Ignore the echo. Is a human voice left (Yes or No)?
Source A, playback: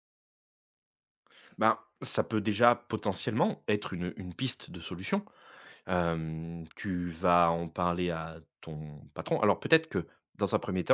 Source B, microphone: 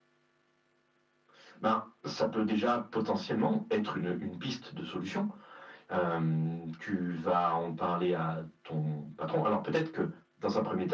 No